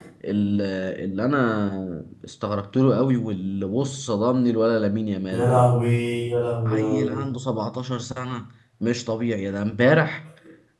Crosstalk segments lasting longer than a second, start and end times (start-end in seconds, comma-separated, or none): none